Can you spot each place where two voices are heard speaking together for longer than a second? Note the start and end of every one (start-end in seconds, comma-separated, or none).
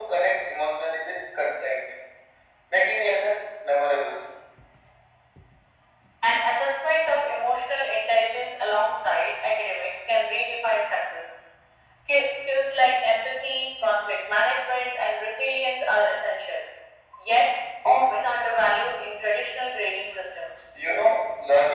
none